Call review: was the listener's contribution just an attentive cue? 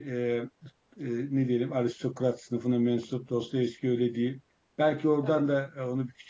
Yes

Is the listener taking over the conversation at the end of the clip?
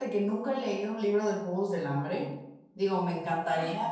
No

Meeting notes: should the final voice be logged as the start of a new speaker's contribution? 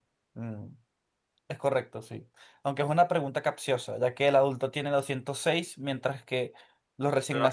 Yes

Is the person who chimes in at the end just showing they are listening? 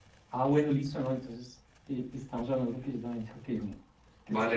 No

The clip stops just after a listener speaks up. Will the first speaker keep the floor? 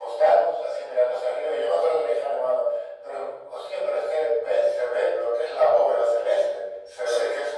Yes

